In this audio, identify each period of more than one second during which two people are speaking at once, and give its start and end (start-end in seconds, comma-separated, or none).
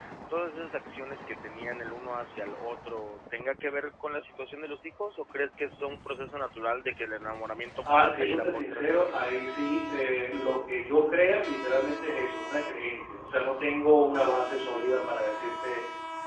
7.8-9.2